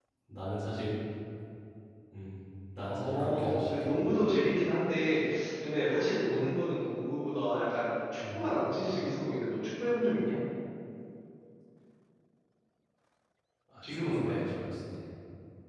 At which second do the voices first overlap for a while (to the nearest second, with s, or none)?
3 s